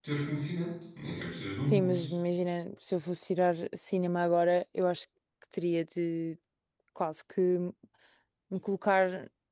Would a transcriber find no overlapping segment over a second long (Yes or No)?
Yes